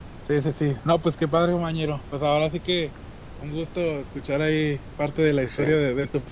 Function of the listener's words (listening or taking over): listening